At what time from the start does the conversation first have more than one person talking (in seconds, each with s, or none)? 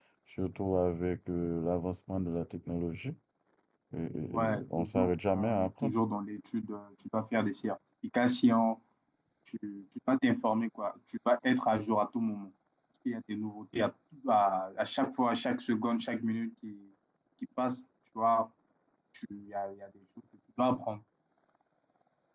4.3 s